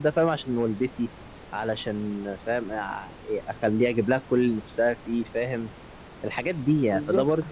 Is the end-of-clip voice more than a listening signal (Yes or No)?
No